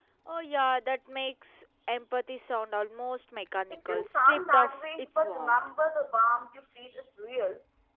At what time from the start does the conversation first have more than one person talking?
4 s

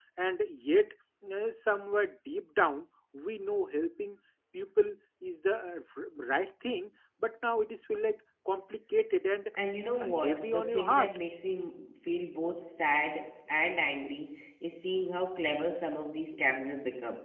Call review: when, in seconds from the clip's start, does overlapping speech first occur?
10 s

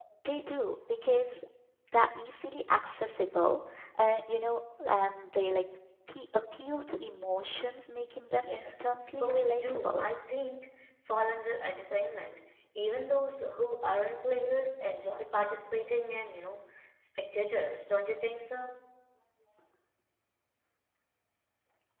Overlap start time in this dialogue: 8 s

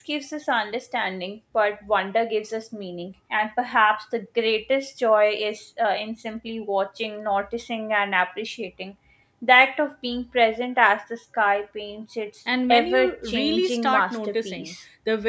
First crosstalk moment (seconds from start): 12 s

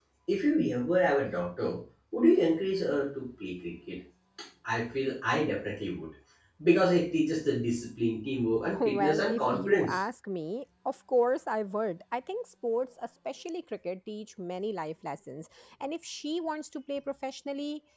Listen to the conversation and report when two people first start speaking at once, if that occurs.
9 s

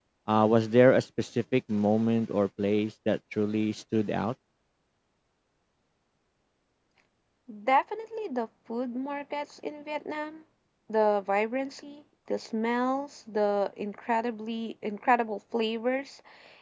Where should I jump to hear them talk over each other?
none

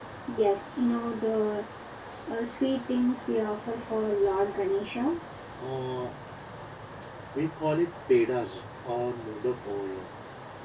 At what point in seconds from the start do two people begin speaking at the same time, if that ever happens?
none

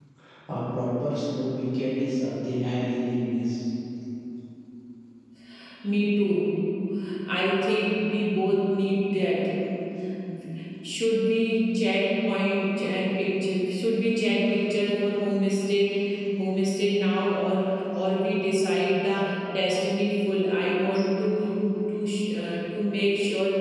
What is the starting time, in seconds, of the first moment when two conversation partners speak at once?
none

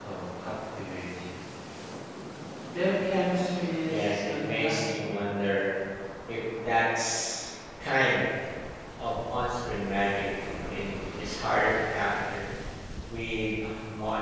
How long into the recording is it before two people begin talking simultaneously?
4 s

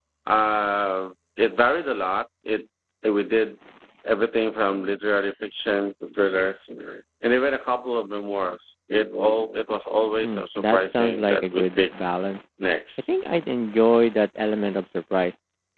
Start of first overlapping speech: 10 s

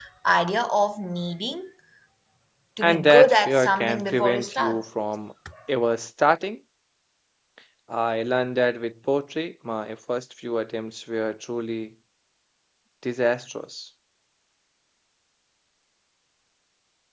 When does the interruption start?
3 s

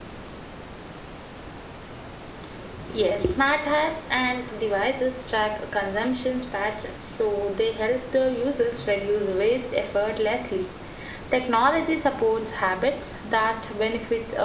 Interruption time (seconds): none

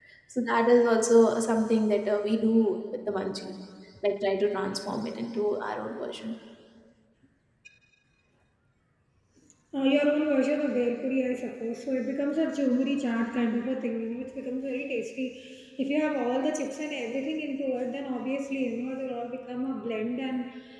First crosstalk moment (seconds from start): none

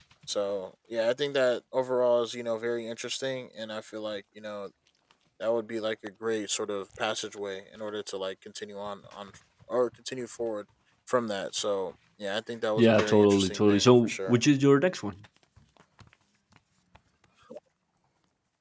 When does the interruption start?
13 s

